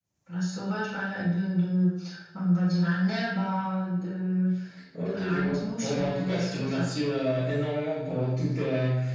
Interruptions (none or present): present